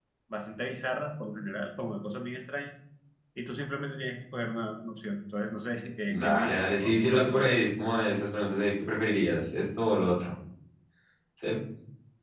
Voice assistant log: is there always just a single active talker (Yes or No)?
No